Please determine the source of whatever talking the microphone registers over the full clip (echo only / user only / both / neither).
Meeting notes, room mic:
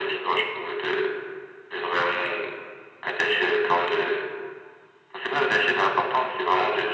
echo only